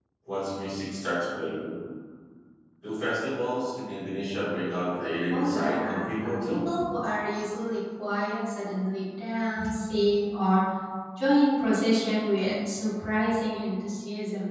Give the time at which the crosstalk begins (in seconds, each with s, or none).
5.3 s